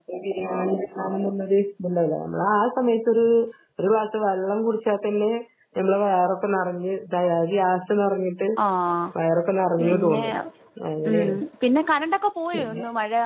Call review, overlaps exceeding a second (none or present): none